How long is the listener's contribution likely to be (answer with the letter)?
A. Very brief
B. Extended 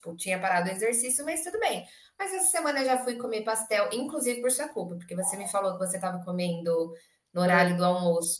A